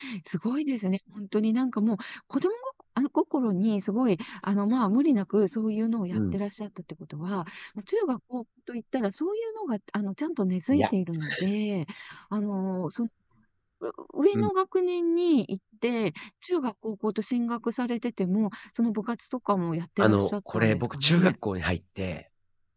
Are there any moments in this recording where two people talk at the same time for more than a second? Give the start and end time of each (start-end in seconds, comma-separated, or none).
20.0-21.3